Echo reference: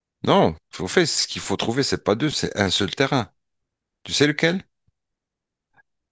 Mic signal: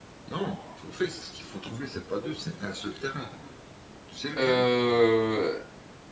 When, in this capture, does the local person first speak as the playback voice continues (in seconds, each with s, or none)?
4.4 s